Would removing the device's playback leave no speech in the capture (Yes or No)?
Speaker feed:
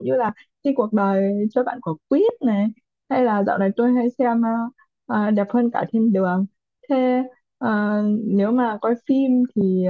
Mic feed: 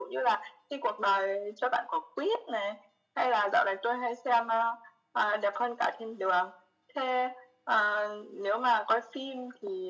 Yes